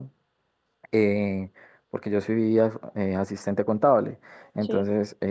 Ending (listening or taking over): listening